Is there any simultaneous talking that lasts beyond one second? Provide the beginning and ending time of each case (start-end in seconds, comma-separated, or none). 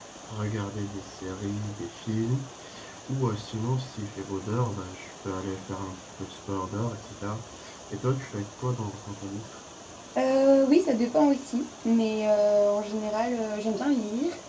none